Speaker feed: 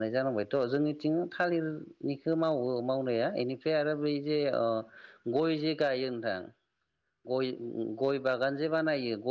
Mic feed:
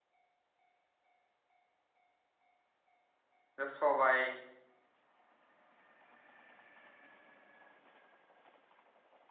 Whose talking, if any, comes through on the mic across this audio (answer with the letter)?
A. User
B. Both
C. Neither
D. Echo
A